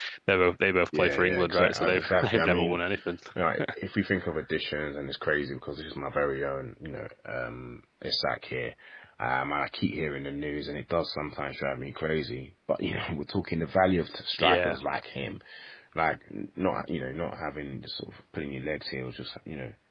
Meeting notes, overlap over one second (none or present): present